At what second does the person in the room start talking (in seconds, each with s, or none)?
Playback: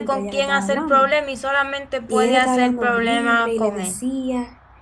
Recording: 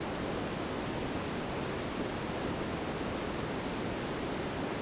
none